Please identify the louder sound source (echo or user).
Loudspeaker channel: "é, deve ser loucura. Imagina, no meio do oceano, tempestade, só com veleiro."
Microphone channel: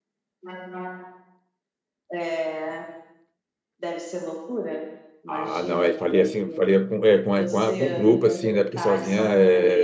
user